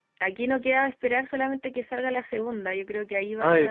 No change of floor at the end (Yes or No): Yes